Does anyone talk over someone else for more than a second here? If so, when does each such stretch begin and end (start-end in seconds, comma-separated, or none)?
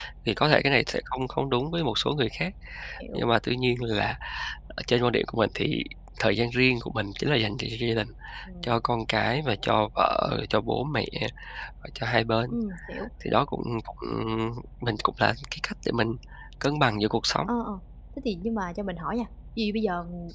none